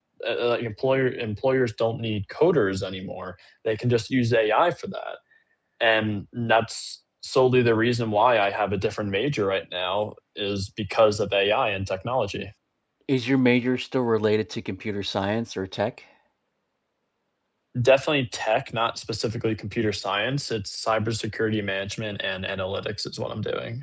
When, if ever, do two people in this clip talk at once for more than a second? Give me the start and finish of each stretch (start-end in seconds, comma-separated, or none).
none